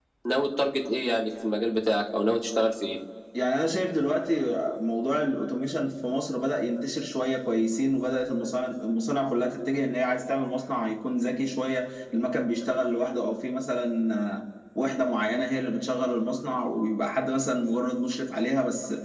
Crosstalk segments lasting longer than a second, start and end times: none

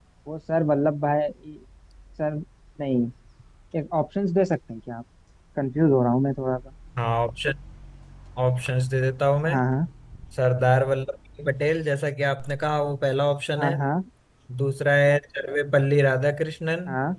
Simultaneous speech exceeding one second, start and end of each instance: none

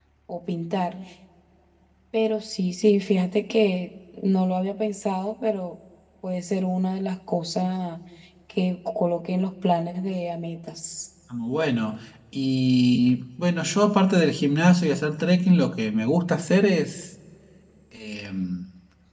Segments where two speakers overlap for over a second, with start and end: none

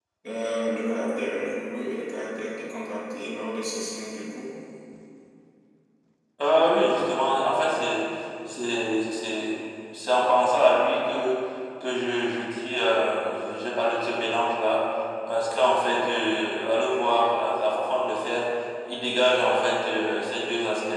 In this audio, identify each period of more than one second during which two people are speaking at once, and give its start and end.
none

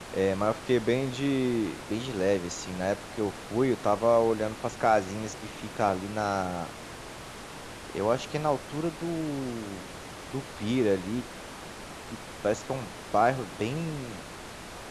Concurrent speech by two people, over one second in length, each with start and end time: none

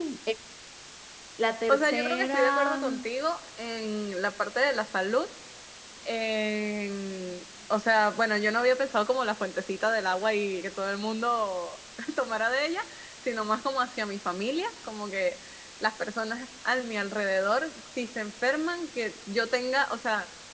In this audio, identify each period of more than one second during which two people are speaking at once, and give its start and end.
1.7-3.0

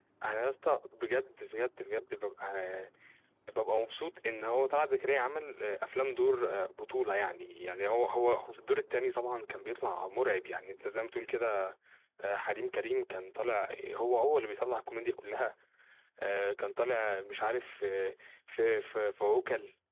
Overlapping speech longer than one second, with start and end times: none

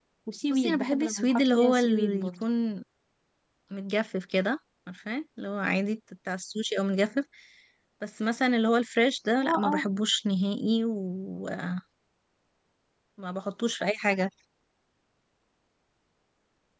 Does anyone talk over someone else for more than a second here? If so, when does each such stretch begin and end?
0.5-2.5

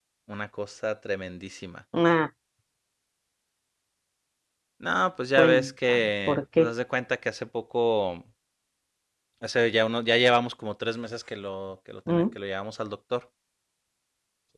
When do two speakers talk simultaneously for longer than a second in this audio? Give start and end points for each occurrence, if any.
5.4-6.7

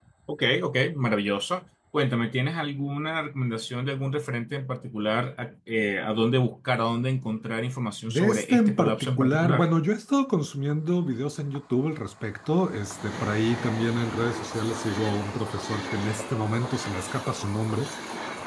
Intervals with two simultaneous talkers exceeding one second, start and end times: 8.1-9.7

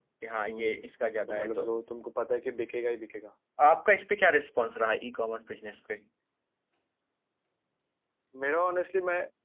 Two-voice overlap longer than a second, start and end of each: none

